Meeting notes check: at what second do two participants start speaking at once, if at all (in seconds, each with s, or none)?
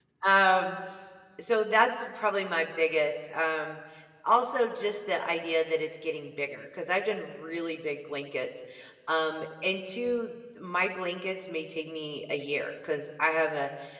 none